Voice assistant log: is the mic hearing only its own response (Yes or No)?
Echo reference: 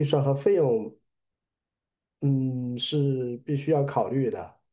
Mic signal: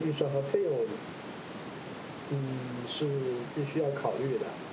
Yes